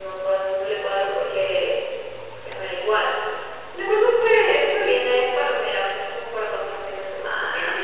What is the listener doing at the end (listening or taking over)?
taking over